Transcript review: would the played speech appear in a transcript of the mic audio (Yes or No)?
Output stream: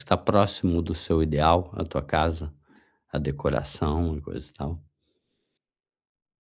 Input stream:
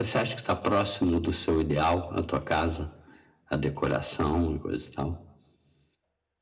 Yes